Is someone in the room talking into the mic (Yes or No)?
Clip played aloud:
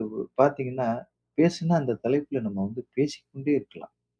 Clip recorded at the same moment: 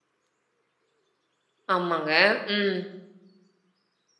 Yes